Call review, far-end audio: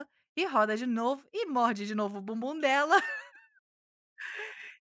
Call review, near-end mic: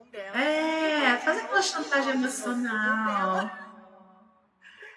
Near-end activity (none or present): present